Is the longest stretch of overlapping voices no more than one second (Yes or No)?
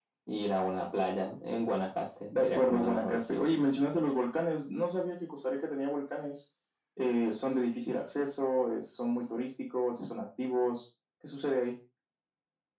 No